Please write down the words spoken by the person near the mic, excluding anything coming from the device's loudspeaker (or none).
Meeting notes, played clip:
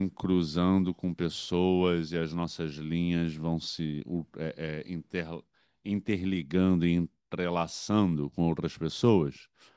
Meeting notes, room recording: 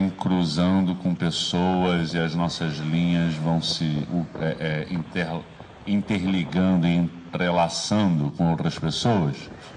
none